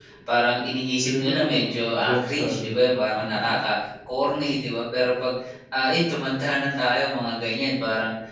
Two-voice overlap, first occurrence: 1.0 s

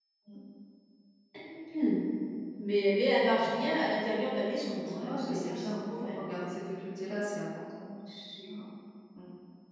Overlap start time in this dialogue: 4.8 s

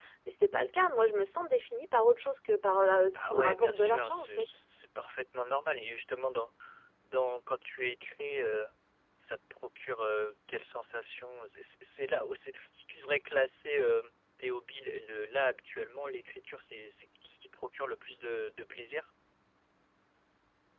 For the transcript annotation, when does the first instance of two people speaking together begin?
3.1 s

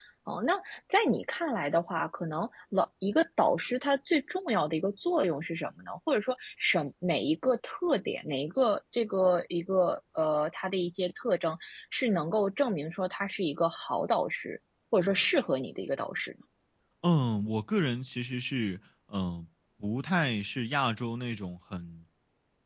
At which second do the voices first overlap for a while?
none

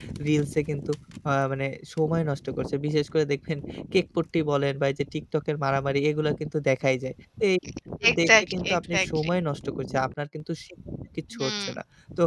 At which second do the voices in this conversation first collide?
8.1 s

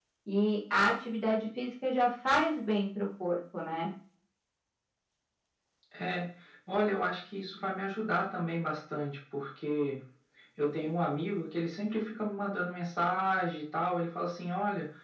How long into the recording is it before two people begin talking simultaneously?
none

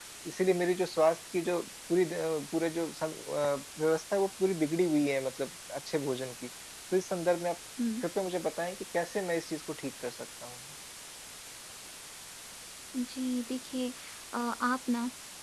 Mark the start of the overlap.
none

